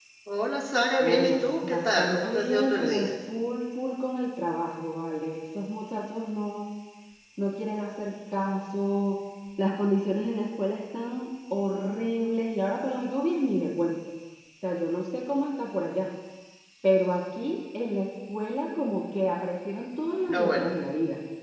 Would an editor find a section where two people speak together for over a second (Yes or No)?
Yes